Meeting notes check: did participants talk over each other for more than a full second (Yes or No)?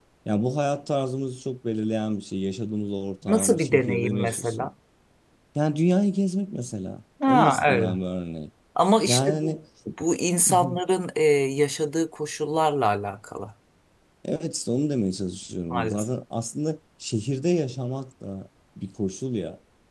Yes